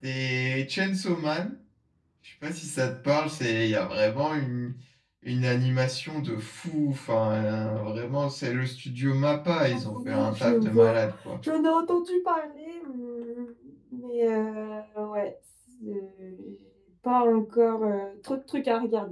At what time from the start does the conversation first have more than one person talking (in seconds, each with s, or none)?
9.7 s